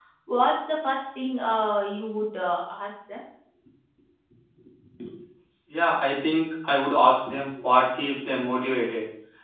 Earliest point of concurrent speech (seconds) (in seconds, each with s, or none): none